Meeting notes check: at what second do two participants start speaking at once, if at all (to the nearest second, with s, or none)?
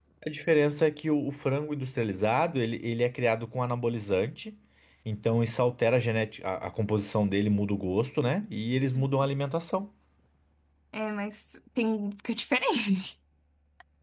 none